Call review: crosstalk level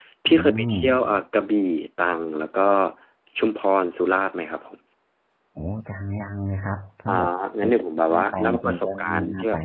present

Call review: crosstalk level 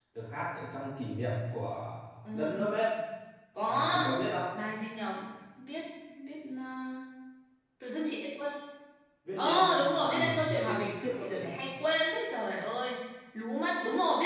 present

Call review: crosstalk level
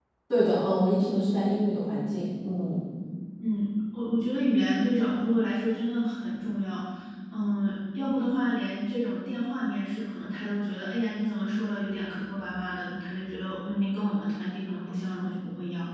none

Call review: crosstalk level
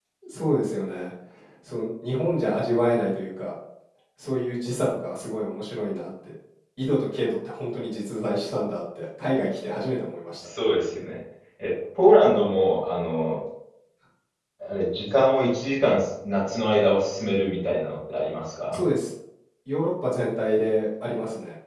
none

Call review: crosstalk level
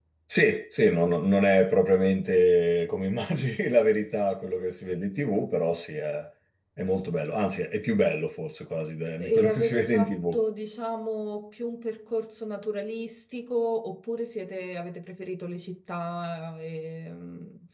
present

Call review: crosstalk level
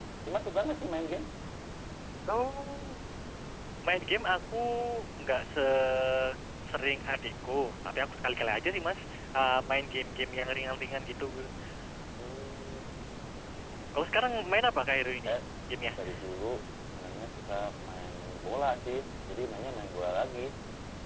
none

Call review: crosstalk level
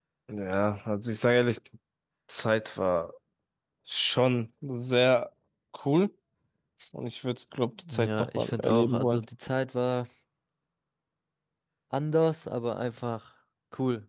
present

